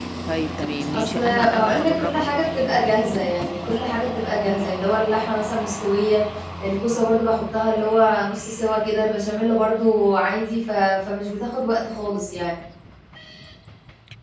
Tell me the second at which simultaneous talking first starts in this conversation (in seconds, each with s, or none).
0.9 s